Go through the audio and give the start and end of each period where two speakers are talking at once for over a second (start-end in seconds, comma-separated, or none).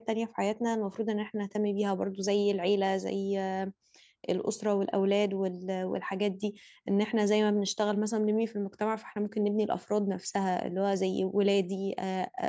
none